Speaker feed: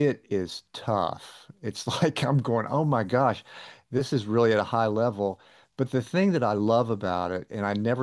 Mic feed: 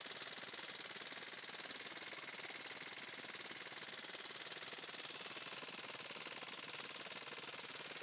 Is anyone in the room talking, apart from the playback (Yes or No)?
No